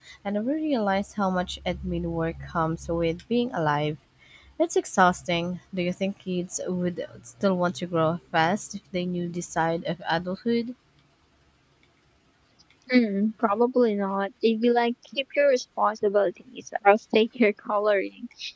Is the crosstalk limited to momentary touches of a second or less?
Yes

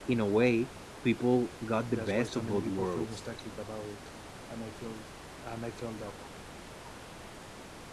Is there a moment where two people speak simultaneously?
Yes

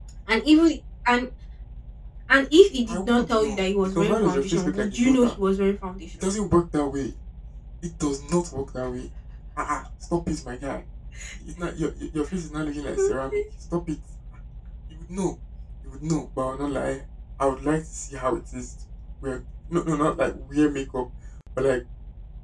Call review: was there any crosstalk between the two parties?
Yes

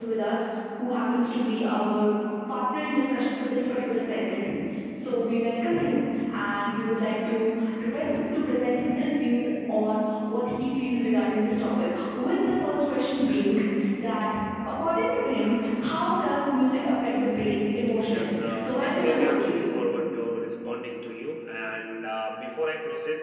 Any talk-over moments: Yes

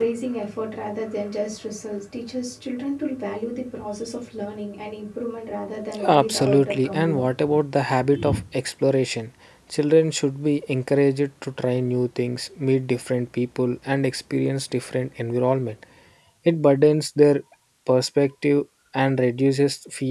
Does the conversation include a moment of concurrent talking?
Yes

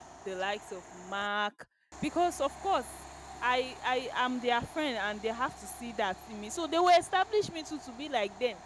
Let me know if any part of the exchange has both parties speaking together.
No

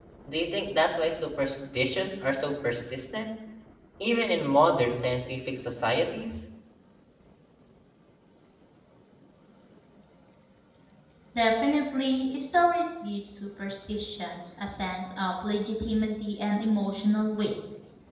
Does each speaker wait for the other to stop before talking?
Yes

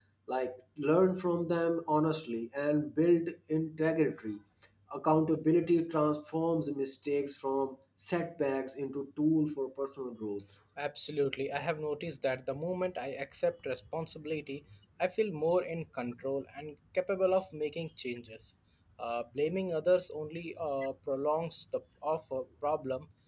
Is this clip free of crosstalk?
Yes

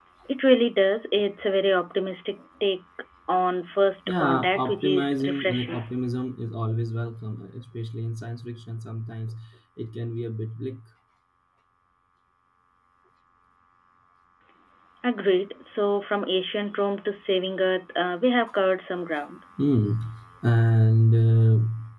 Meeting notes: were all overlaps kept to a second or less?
No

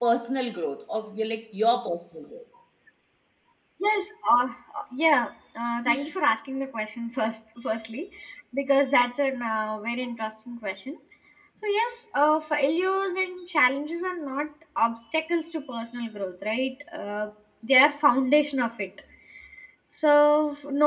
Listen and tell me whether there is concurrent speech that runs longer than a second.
No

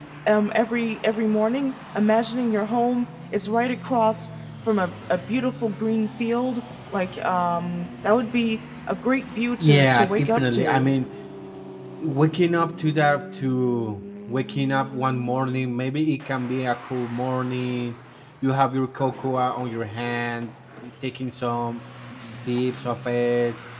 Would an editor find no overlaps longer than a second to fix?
No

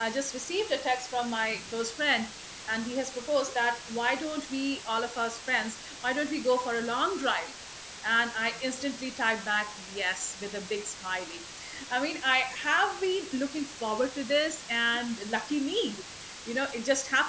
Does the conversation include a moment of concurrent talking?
No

